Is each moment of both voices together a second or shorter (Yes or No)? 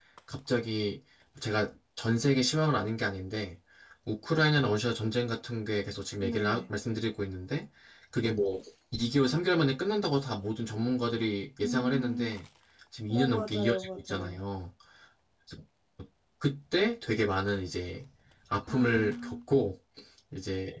No